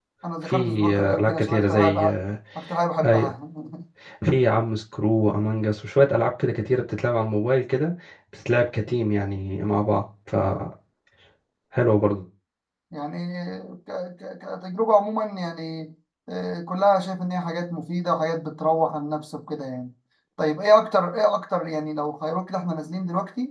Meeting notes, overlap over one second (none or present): present